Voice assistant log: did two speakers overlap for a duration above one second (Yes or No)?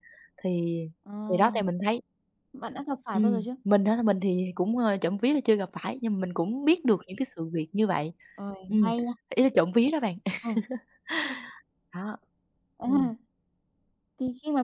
No